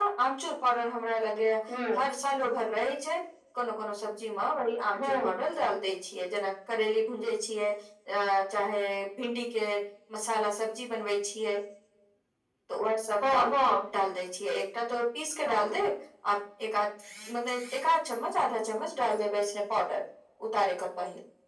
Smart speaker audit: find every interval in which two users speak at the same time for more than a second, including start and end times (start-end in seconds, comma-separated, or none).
none